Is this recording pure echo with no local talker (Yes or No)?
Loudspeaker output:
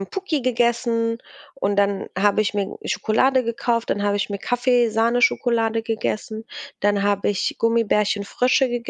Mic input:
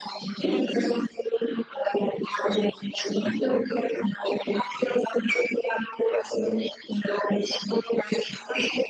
Yes